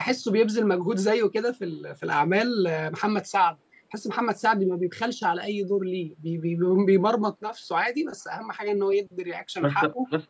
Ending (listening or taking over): taking over